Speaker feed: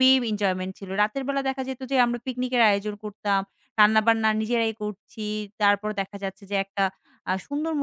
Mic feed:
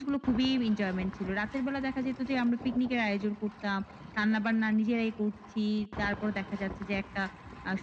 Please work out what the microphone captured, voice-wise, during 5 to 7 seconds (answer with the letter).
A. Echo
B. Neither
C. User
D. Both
A